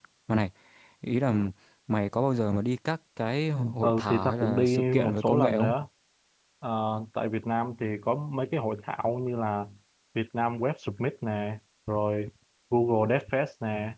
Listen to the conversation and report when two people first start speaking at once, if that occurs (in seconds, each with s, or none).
3.8 s